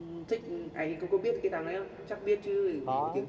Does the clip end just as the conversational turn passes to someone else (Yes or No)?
Yes